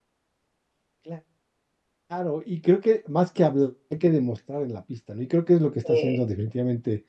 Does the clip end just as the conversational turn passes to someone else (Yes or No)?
No